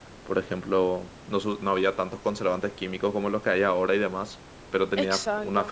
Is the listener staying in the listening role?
Yes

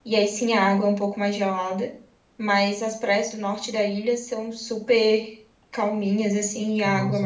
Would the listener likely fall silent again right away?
No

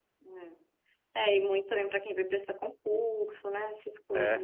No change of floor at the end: No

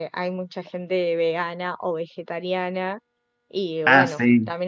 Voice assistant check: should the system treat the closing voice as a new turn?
No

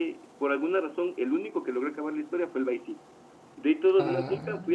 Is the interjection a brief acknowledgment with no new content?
Yes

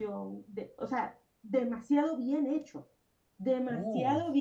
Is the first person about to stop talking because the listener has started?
No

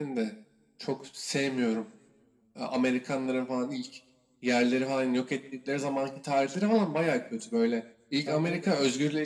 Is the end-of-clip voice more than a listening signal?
No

